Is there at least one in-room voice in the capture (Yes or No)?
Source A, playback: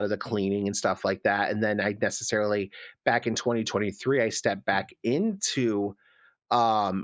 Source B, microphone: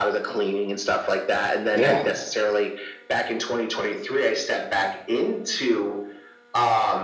Yes